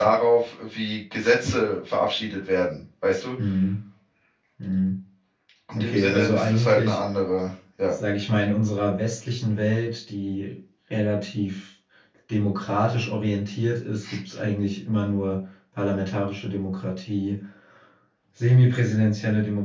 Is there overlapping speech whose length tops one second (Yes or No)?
Yes